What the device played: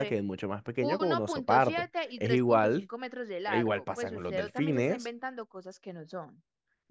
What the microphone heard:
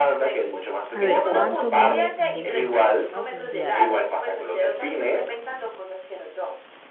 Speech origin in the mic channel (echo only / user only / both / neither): both